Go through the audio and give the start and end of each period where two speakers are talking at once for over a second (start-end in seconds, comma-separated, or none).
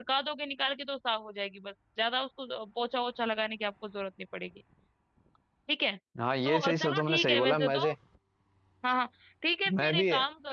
6.5-7.8